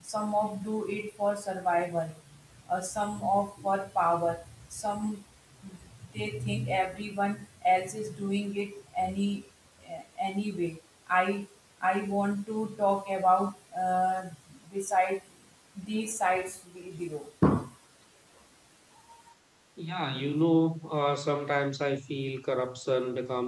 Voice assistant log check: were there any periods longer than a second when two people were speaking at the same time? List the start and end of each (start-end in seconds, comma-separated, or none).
none